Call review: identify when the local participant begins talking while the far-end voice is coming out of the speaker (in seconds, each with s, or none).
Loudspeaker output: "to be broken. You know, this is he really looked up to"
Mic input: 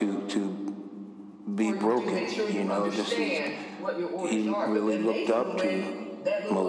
1.6 s